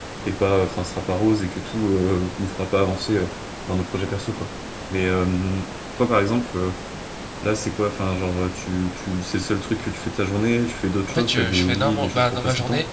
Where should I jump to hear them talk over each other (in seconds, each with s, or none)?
11.1 s